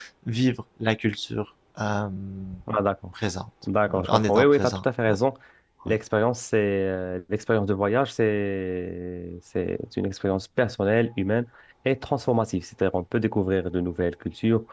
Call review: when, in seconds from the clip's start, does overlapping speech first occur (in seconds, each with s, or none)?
3.9 s